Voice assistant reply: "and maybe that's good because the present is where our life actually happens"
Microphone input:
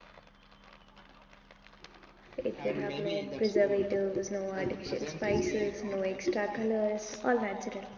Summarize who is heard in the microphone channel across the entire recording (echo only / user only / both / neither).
both